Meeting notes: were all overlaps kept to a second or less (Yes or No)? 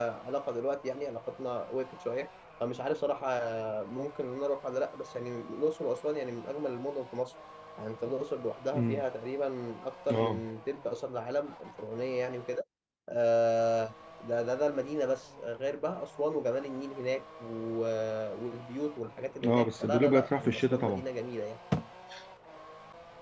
No